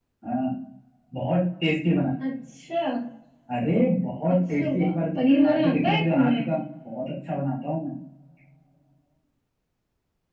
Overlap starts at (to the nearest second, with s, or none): 4 s